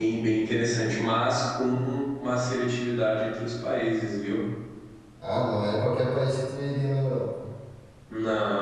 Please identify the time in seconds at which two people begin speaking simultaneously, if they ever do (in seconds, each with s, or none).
none